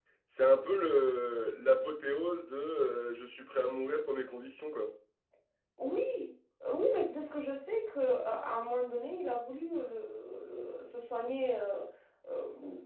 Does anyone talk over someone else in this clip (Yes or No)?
No